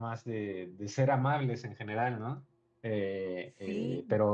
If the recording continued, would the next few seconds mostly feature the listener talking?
No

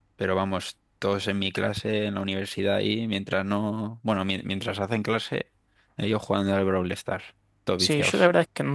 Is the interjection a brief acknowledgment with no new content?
No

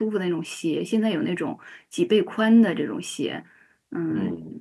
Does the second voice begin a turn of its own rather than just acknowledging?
No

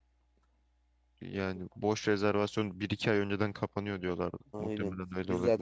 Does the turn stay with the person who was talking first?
No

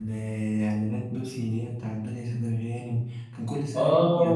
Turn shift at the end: Yes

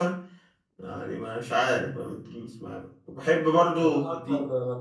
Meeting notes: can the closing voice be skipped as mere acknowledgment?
No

